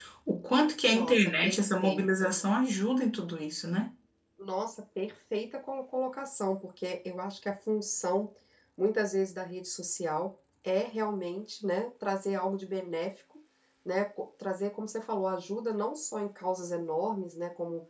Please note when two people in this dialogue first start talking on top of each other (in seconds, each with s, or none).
0.9 s